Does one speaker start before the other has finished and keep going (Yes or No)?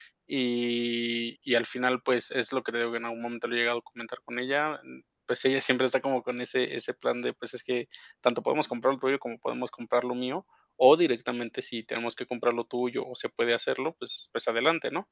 No